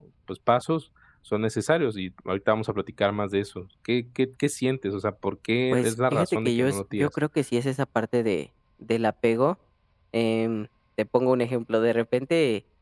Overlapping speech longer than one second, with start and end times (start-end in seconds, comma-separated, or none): 5.7-7.1